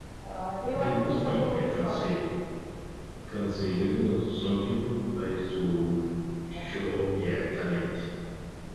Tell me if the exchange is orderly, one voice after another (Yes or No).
No